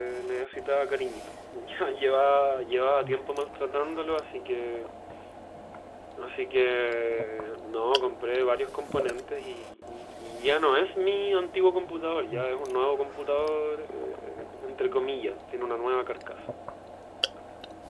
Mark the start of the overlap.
none

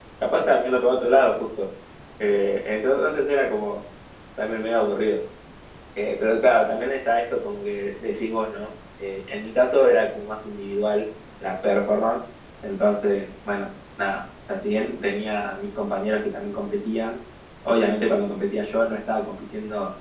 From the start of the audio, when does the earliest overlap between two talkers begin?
none

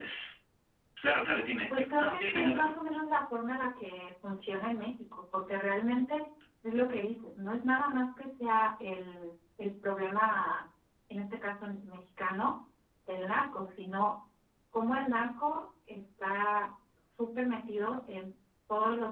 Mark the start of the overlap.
1.7 s

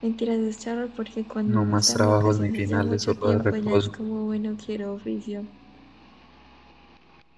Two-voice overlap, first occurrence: 1.4 s

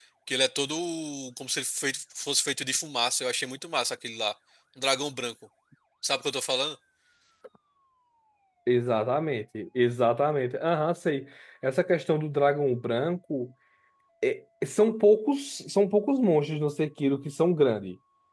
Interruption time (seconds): none

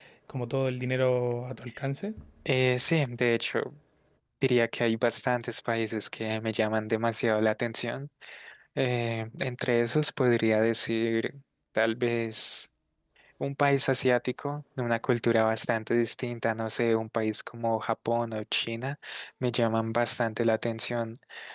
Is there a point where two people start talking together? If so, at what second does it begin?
none

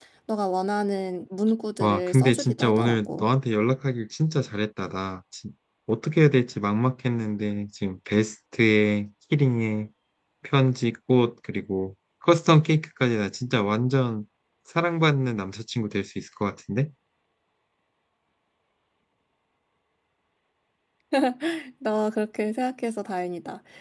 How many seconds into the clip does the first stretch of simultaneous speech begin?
1.8 s

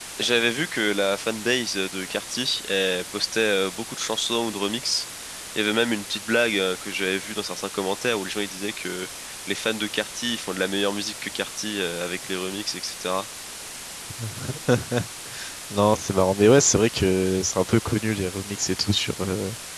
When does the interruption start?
none

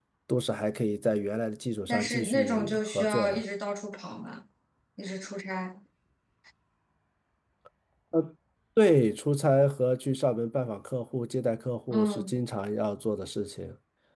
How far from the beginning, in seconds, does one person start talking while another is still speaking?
1.9 s

